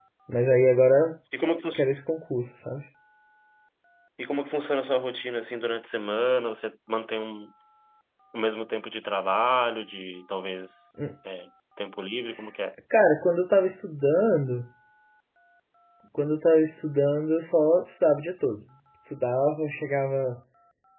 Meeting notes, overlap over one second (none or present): none